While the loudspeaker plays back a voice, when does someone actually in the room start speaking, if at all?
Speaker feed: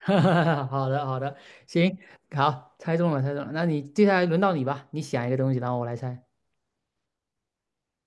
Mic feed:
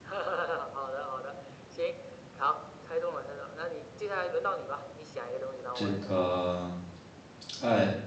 5.7 s

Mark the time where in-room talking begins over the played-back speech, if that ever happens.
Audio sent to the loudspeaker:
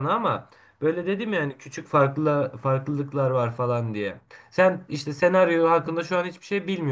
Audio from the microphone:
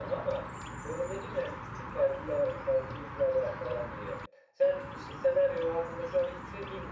none

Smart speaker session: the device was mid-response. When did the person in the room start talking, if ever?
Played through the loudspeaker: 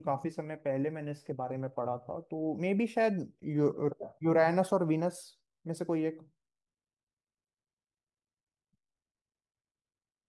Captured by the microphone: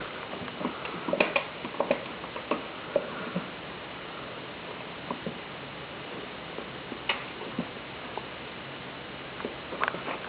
none

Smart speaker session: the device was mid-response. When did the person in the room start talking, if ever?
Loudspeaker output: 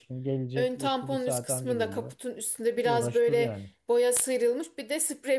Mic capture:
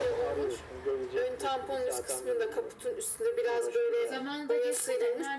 4.0 s

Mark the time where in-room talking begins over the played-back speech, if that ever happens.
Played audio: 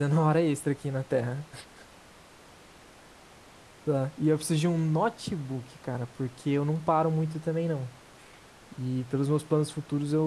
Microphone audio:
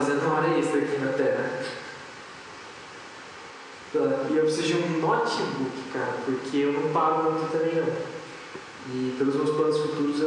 none

